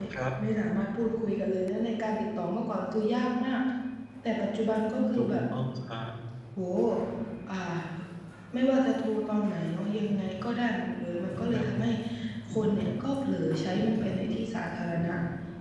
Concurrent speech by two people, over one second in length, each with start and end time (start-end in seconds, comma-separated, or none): none